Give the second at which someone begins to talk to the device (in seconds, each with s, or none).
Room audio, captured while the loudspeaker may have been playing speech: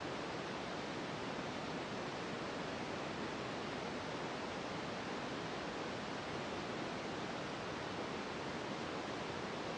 none